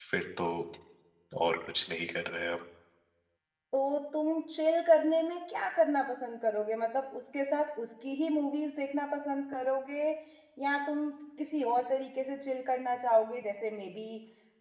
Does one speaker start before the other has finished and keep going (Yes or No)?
No